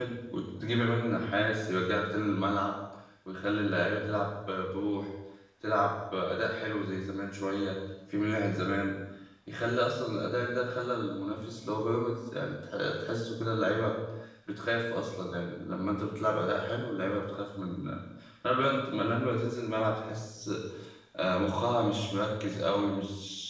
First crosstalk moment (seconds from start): none

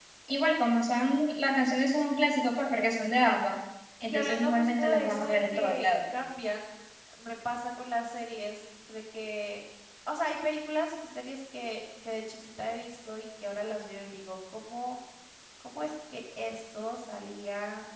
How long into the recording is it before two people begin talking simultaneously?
4 s

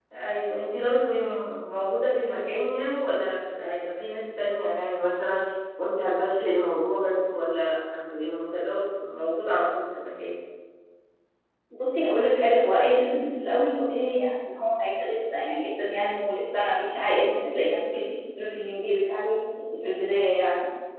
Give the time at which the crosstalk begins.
none

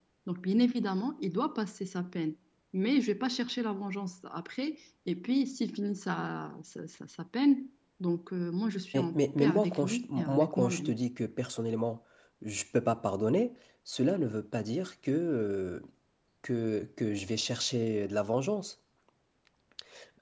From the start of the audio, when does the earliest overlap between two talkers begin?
9 s

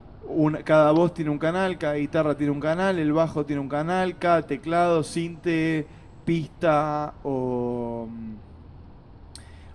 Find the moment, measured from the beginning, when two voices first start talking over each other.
none

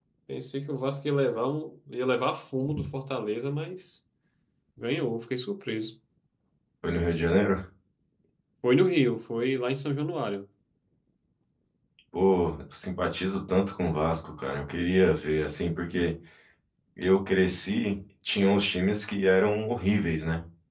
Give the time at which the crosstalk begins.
none

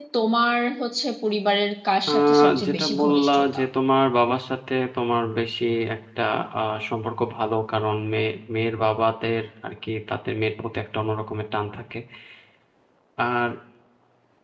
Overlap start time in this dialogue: 2 s

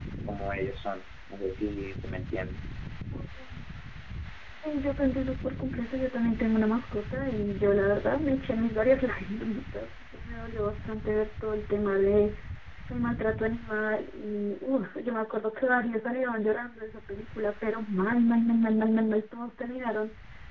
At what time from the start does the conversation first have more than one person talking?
none

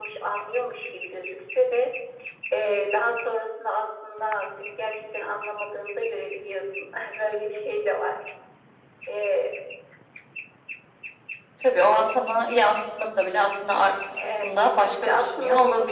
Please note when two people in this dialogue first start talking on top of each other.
14 s

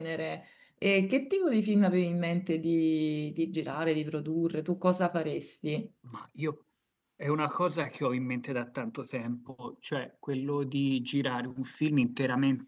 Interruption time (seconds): none

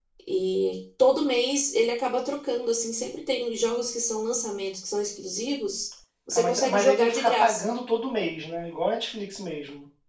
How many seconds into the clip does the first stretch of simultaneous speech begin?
6 s

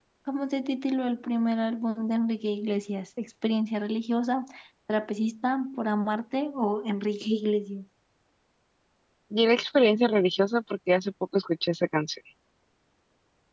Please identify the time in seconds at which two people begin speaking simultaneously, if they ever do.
none

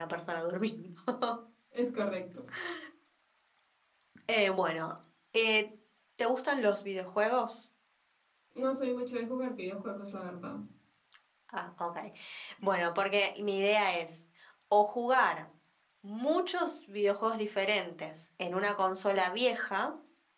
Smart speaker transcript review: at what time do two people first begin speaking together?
none

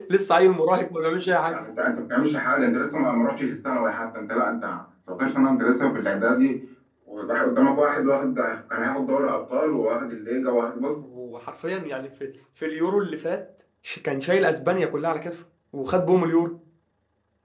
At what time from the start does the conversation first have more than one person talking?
none

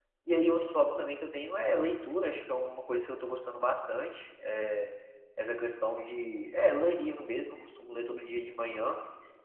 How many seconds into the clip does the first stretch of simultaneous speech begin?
none

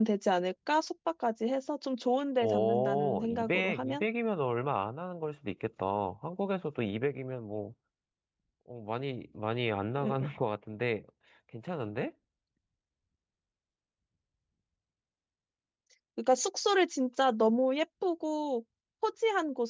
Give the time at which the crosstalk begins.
2 s

